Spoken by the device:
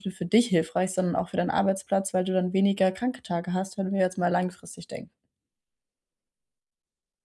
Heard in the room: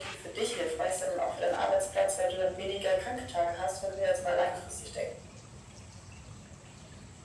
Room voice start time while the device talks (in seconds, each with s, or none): none